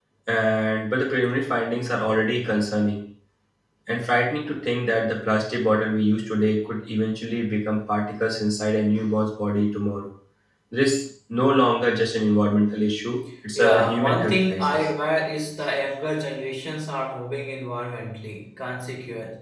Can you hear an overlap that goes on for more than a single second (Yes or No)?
Yes